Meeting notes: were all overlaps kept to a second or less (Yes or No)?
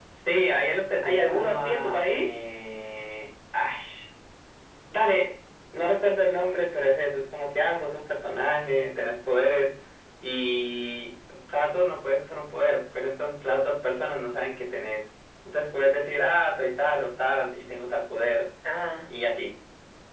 No